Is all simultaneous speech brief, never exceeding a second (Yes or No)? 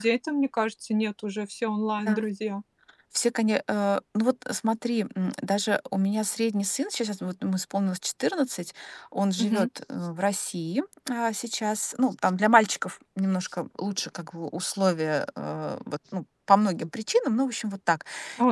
Yes